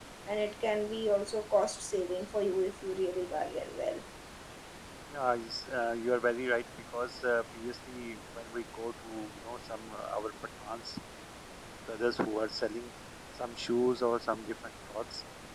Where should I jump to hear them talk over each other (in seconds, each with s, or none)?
none